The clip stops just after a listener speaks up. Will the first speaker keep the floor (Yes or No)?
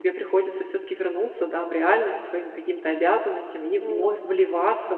Yes